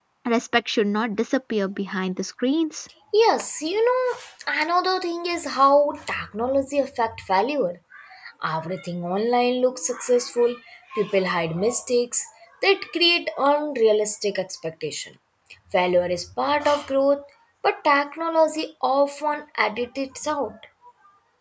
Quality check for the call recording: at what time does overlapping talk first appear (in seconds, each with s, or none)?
none